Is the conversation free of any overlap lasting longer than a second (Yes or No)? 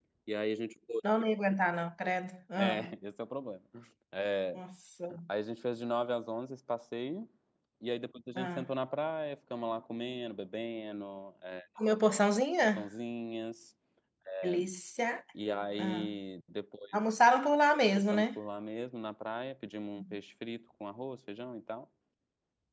Yes